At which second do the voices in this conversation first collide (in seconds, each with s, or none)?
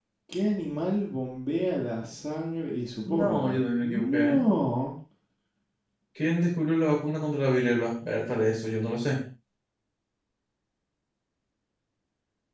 3.0 s